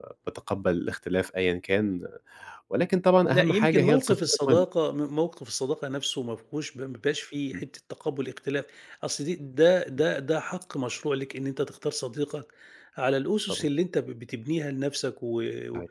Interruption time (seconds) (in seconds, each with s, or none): 3.3 s